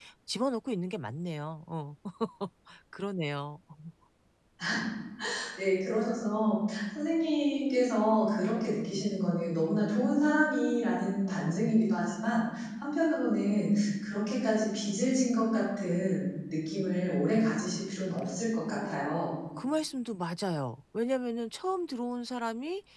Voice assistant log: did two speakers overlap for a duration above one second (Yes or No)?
No